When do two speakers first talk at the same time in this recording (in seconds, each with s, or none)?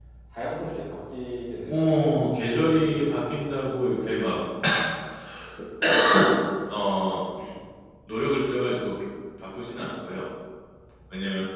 1.7 s